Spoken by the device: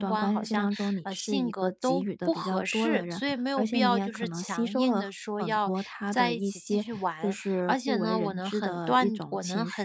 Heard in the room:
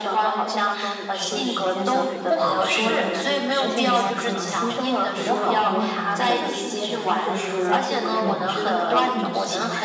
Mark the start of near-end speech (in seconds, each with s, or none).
1.2 s